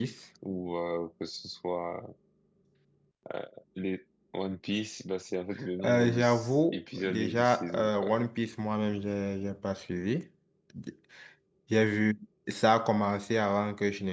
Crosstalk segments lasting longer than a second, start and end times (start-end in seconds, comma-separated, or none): 5.8-8.1